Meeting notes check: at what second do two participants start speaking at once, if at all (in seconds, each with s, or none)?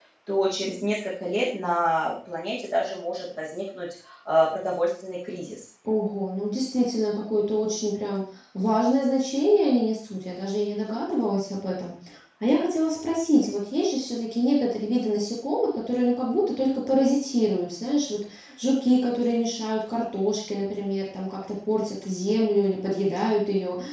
none